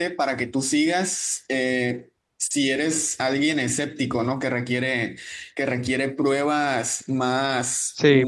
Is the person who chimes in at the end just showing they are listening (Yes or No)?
No